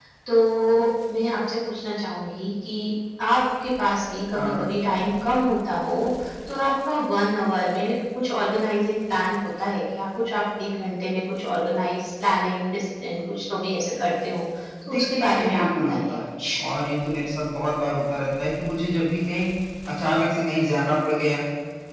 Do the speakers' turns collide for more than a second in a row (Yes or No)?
Yes